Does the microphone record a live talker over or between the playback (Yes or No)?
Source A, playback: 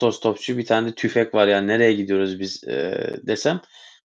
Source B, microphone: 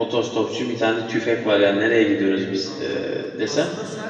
Yes